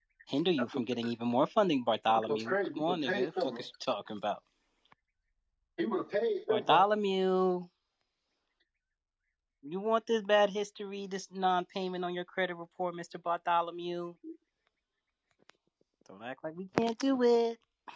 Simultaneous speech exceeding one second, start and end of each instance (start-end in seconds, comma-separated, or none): 2.1-3.6